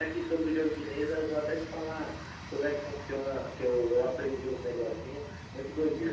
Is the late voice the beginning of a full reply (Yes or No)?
Yes